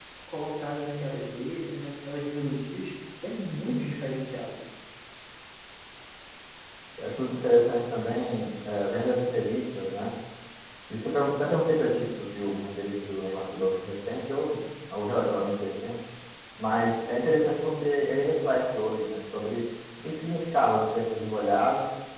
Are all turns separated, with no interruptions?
Yes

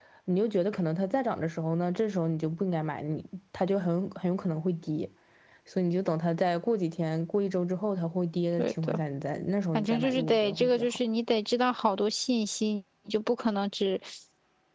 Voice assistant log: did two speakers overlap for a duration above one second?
Yes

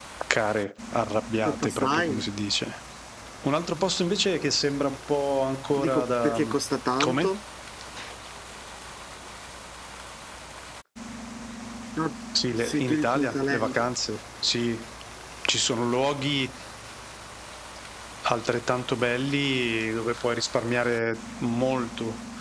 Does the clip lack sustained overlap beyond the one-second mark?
No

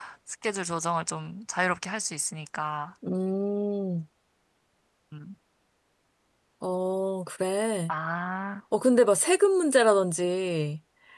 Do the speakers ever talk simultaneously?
No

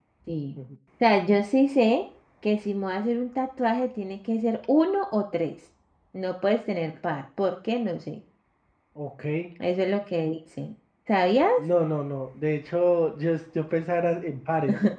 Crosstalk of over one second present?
No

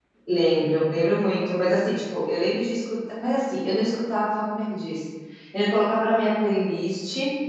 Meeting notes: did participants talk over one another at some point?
No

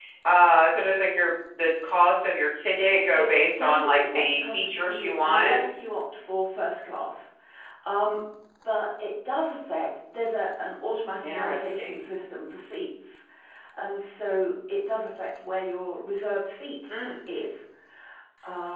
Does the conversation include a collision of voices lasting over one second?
Yes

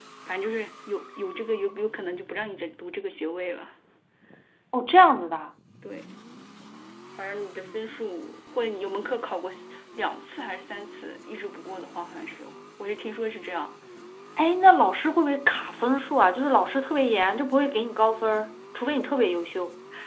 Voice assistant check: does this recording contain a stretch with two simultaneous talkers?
No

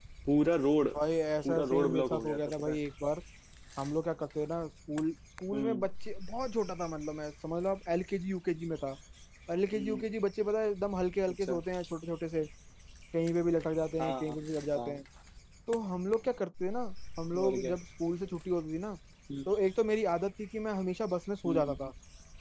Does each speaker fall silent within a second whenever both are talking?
No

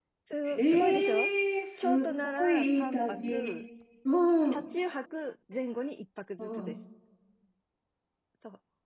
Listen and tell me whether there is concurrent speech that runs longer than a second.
Yes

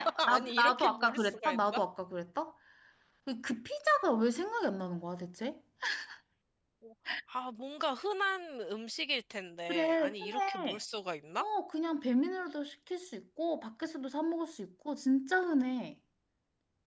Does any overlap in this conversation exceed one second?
Yes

